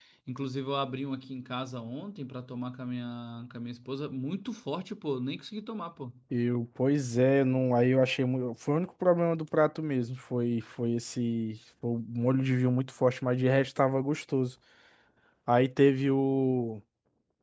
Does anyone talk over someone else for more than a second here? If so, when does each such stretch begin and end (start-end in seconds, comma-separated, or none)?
none